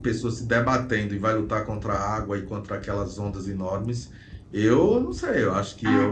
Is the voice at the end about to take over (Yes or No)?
Yes